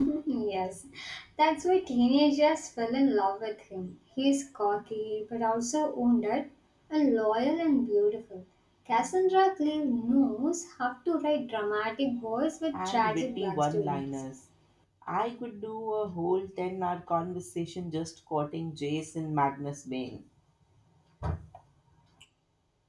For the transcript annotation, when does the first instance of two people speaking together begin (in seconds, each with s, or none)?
12.7 s